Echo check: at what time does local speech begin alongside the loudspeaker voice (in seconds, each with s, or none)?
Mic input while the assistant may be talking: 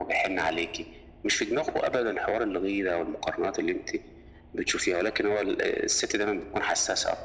none